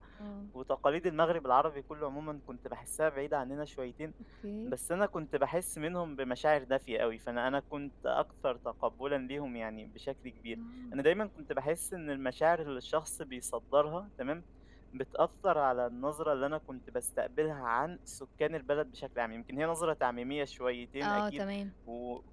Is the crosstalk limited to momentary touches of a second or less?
Yes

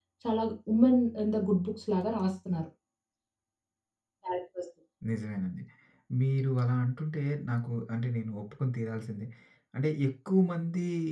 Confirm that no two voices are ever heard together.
Yes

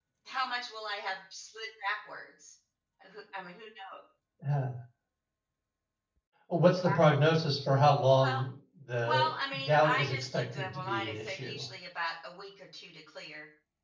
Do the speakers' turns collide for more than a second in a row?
Yes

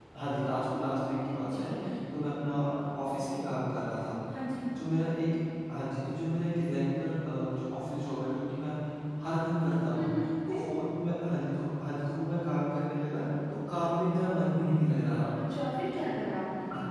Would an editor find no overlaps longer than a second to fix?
Yes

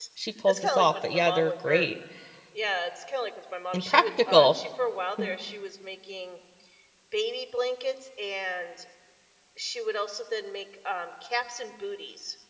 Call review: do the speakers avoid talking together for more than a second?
No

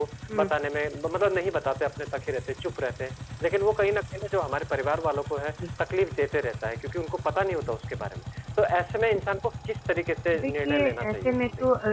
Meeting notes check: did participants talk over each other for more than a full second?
Yes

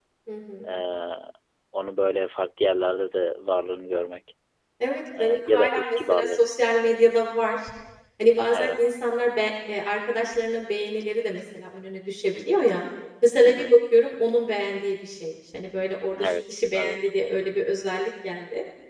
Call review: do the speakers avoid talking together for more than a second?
No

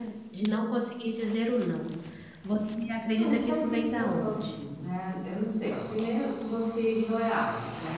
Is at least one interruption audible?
Yes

